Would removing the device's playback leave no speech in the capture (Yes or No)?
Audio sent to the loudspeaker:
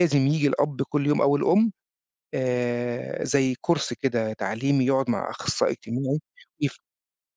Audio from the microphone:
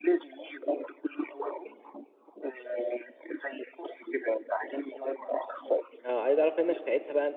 No